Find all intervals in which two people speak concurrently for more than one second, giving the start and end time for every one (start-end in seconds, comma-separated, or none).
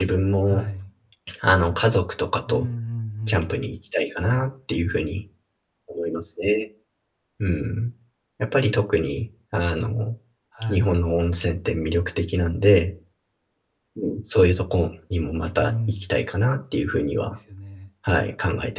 none